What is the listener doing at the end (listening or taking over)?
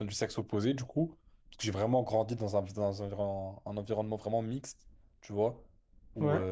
listening